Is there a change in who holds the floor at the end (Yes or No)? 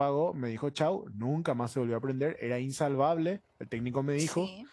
No